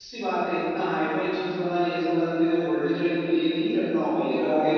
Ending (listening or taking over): listening